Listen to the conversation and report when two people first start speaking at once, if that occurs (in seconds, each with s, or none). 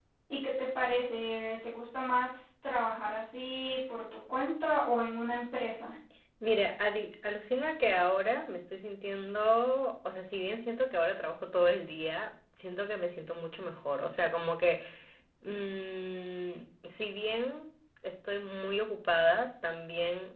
none